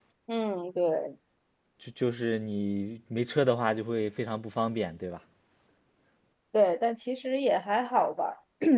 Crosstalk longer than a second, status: none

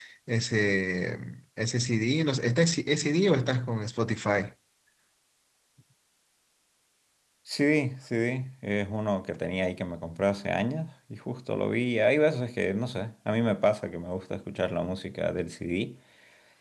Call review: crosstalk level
none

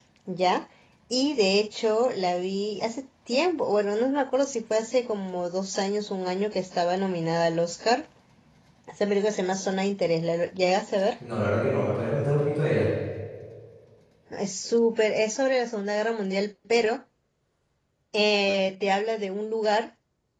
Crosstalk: none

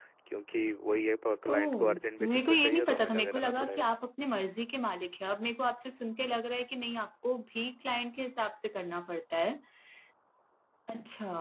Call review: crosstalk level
present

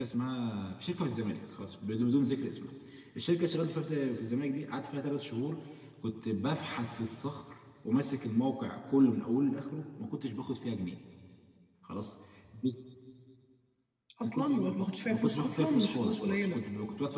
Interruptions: present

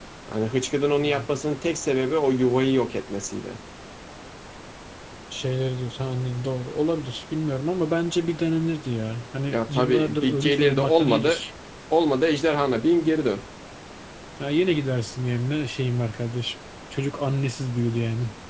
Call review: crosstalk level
present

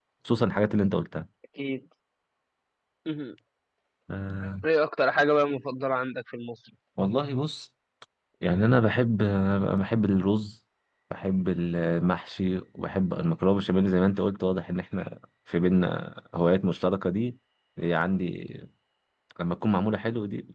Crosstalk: none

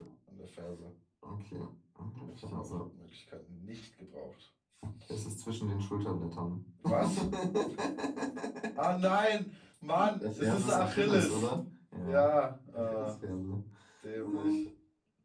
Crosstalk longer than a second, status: present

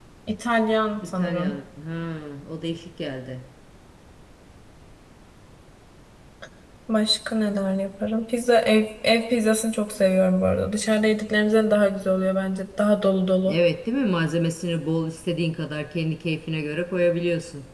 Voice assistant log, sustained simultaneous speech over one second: none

